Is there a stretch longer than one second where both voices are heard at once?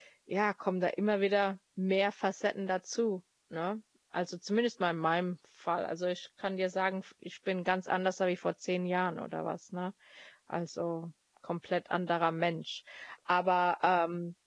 No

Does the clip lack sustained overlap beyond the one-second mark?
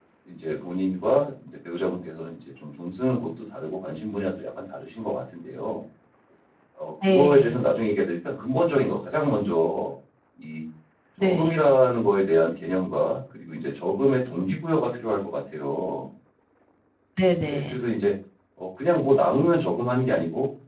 Yes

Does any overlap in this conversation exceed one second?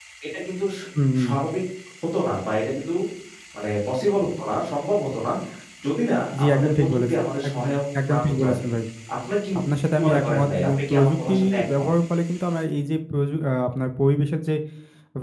Yes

